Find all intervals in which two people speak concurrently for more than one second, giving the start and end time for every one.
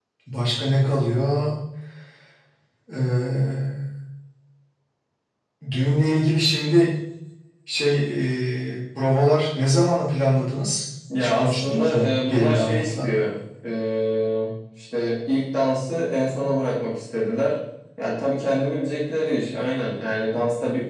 11.2-13.1

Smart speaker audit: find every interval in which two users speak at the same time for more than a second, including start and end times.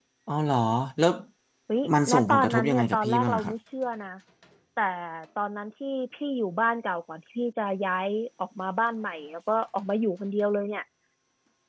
2.1-3.5

